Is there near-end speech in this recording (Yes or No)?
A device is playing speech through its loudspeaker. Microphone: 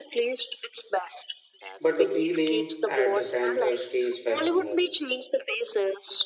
Yes